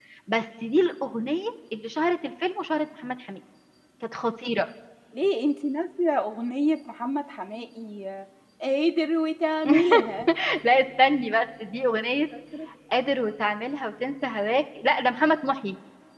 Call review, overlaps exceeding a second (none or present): none